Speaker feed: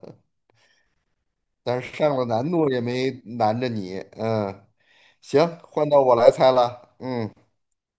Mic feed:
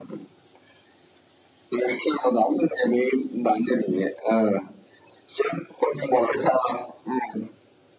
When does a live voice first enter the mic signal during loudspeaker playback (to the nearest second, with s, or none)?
none